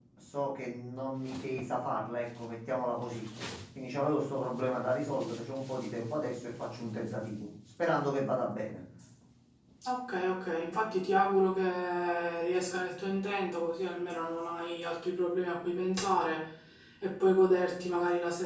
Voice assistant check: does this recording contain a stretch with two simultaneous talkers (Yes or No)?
No